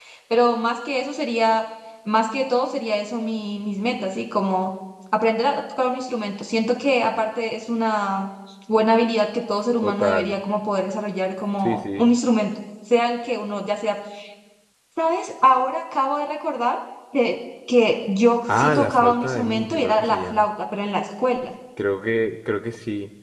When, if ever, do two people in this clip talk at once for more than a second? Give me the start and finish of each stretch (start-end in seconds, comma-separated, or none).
18.6-20.4